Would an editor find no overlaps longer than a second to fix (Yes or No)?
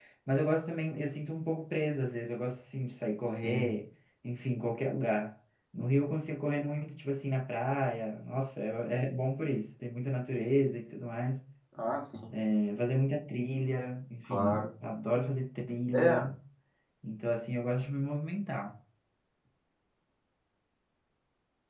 Yes